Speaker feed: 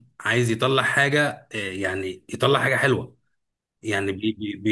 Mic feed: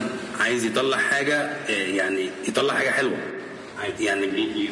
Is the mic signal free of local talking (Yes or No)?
No